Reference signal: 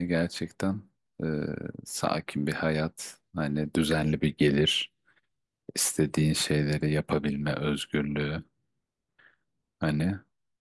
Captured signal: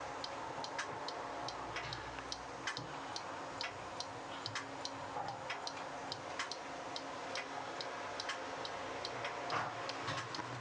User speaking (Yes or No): No